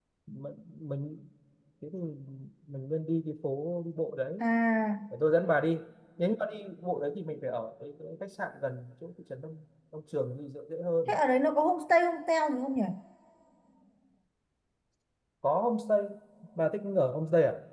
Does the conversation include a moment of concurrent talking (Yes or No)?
No